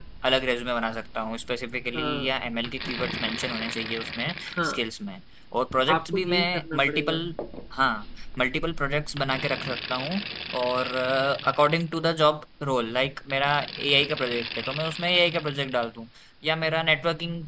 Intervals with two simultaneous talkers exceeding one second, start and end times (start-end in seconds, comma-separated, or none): 5.9-7.2